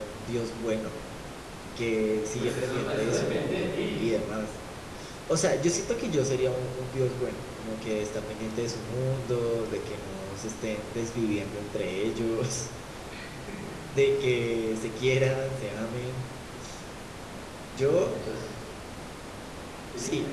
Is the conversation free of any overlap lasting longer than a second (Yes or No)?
No